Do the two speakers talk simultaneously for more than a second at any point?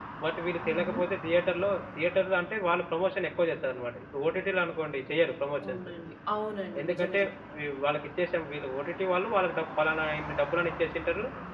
No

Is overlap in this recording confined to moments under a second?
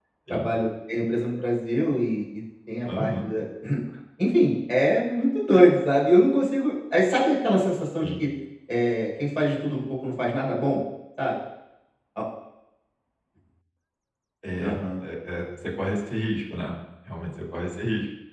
Yes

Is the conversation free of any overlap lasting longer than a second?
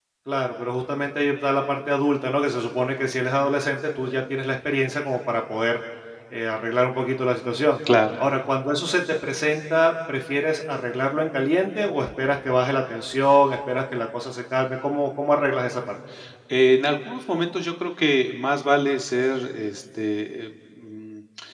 Yes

